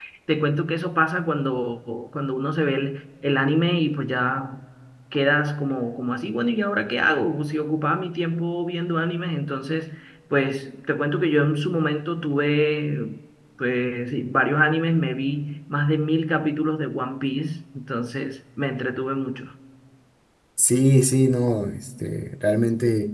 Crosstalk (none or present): none